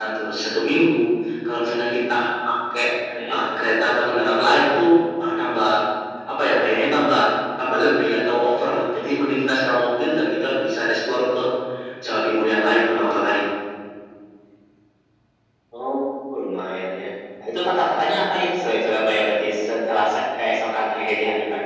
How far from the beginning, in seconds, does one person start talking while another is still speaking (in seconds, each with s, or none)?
none